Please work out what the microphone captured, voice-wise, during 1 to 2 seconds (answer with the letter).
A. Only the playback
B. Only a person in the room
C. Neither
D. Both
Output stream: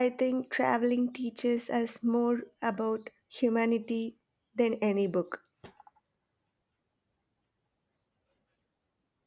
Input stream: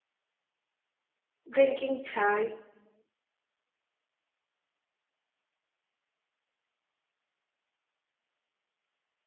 B